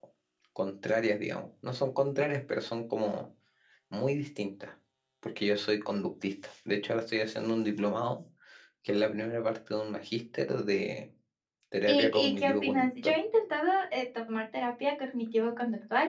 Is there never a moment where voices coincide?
No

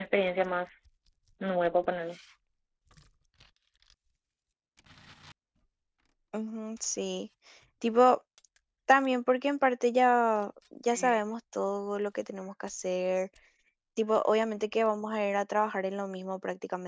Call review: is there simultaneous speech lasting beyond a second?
No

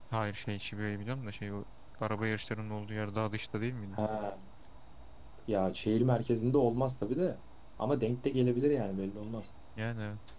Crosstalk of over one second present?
No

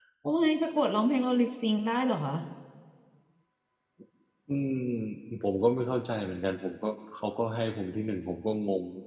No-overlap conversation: Yes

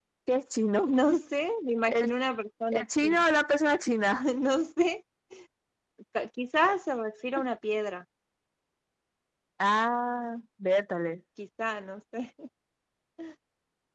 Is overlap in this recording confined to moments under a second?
Yes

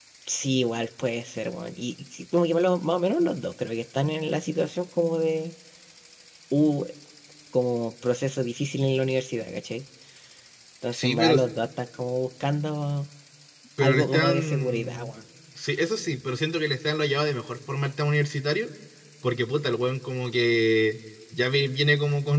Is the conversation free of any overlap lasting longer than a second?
No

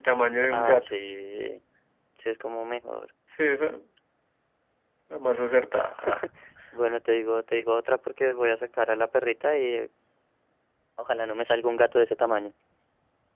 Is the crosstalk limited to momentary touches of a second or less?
Yes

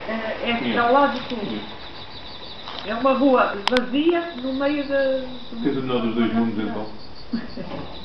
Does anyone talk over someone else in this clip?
Yes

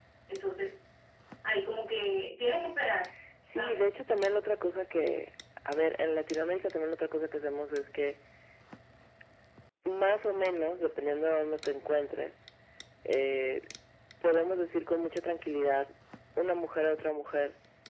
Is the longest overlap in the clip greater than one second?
No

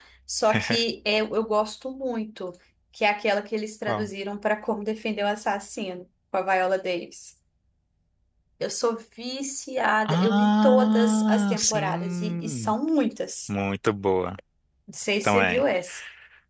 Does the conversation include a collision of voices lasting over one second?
Yes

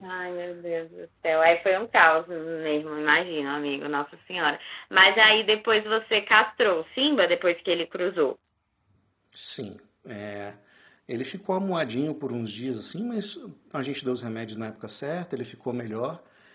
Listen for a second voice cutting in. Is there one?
No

